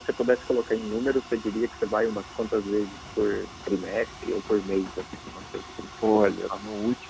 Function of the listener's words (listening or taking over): taking over